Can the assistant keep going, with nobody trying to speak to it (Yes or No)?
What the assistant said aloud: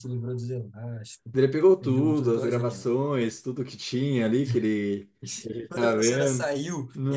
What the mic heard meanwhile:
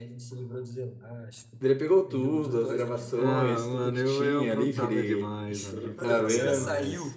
No